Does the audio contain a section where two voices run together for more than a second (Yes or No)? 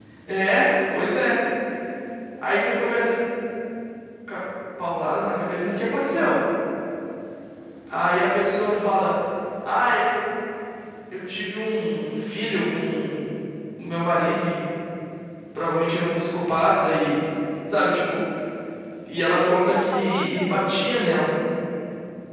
Yes